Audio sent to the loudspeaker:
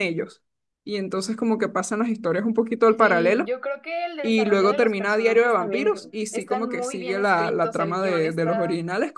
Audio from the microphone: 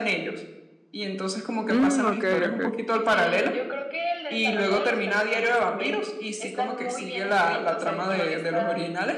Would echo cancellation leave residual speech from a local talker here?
Yes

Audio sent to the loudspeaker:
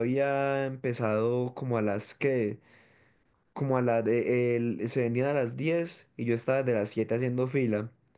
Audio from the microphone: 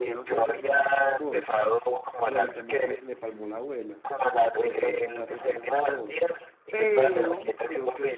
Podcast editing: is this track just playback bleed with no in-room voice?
No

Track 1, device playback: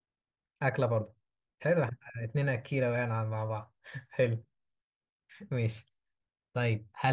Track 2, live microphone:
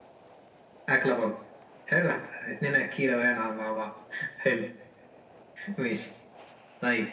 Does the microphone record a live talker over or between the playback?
No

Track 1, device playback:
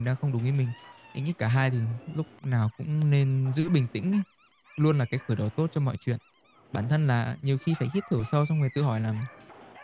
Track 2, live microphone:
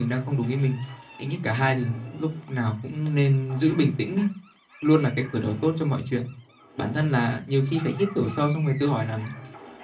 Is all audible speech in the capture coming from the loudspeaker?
Yes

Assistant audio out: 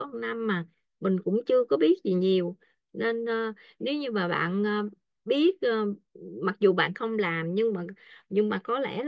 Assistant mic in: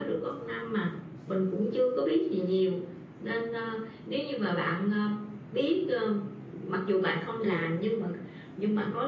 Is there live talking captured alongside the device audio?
Yes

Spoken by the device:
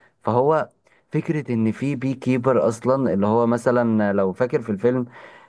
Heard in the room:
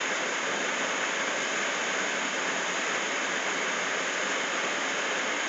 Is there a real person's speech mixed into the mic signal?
No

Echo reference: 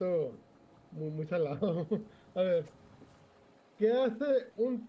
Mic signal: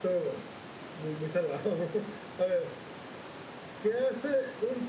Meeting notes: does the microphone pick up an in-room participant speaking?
No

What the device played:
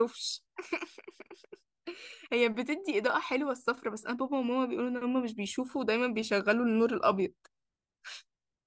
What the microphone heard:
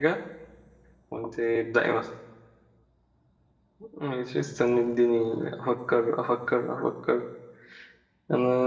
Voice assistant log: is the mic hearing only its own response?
No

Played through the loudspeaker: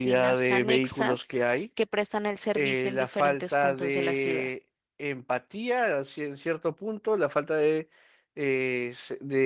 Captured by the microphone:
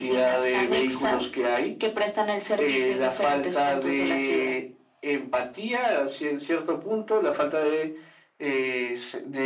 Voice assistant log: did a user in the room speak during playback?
No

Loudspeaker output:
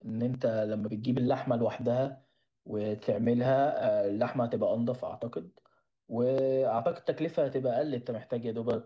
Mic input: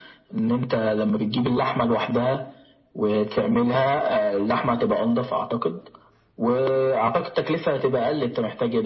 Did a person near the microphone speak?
No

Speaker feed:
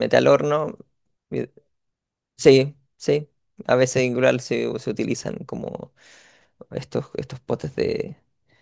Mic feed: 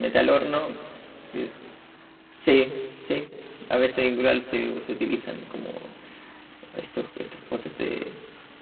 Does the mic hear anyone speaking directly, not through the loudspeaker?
No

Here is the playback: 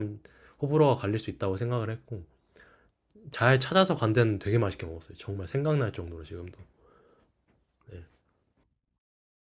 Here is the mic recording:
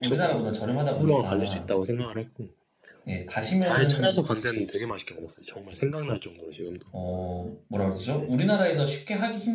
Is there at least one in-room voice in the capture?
Yes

